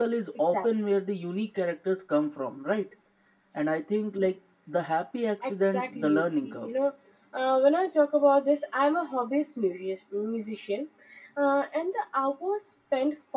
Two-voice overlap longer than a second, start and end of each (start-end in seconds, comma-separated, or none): 5.4-6.7